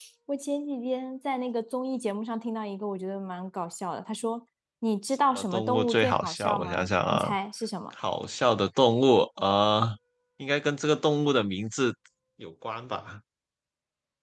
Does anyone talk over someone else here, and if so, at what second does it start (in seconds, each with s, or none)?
5.3 s